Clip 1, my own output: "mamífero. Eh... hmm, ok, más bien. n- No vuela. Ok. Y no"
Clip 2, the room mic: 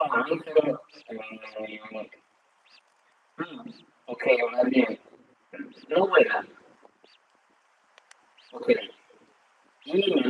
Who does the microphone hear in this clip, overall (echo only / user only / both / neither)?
echo only